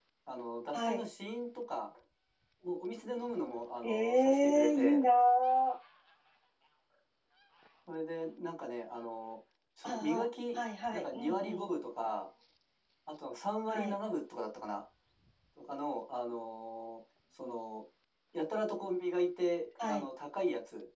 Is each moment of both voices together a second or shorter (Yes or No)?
No